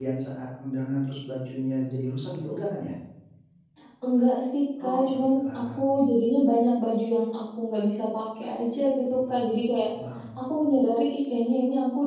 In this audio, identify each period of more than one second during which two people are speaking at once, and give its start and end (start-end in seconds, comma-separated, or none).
none